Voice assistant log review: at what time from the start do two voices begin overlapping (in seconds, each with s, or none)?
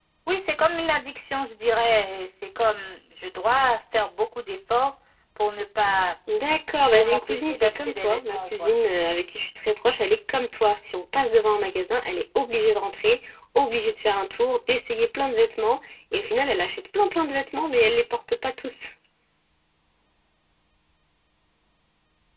6.9 s